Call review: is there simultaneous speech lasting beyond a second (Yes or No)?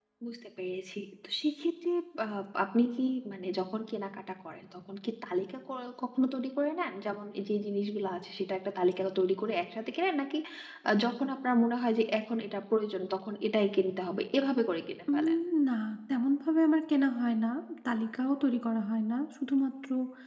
No